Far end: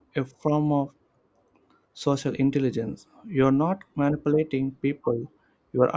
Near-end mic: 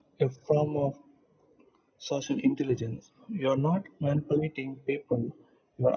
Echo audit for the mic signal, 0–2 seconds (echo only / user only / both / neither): echo only